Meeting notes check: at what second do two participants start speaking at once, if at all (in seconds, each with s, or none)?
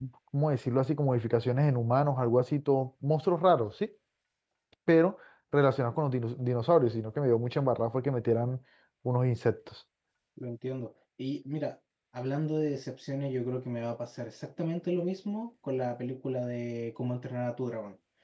none